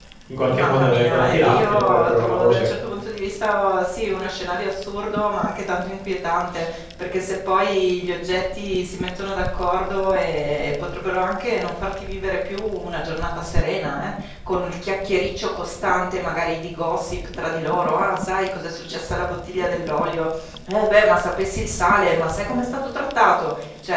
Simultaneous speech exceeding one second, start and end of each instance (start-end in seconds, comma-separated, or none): 0.5-2.7